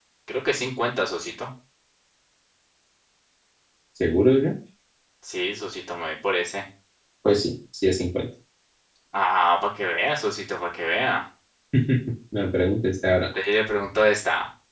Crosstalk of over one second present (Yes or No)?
No